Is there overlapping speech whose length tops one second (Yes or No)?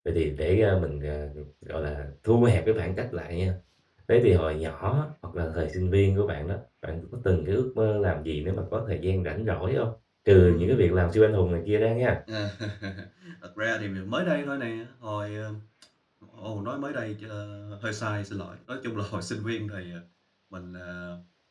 No